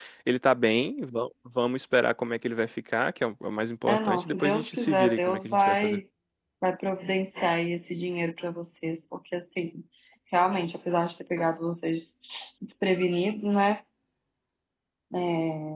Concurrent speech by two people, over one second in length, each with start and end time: 3.9-6.0

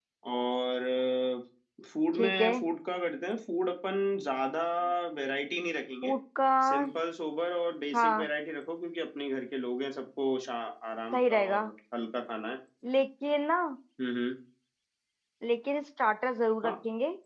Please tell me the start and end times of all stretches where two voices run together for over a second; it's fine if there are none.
none

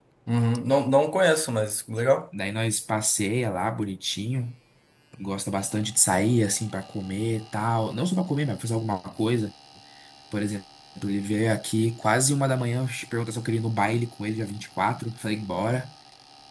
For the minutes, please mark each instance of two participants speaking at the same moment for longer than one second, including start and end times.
none

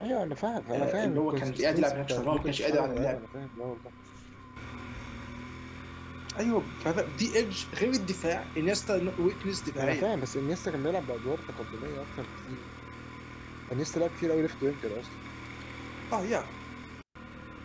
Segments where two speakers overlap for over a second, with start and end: 0.7-3.2

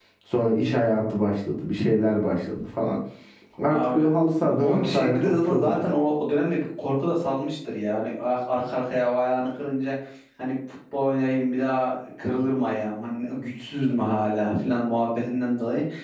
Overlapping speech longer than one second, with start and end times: 4.5-5.8

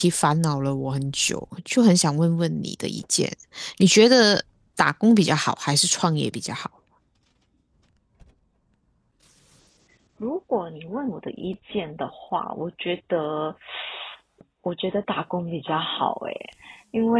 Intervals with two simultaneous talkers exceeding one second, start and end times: none

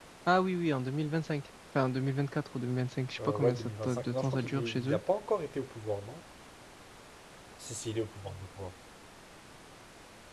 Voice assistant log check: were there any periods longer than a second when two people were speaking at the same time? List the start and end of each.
3.2-5.0

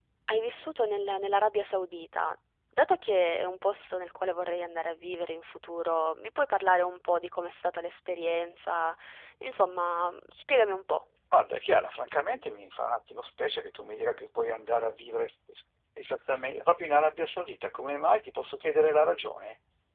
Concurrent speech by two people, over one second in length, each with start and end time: none

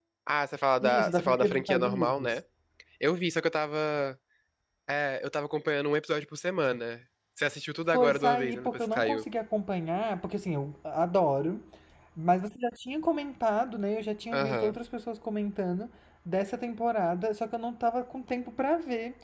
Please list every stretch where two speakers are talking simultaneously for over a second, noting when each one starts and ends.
0.8-2.4, 7.9-9.2

